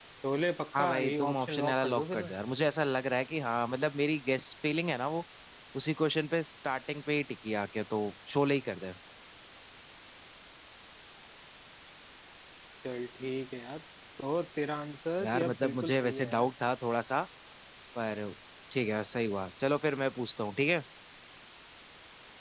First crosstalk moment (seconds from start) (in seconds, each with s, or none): 0.8 s